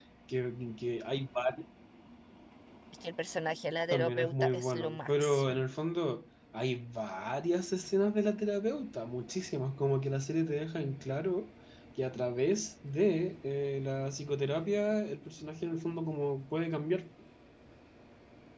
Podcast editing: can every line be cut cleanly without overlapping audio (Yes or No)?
No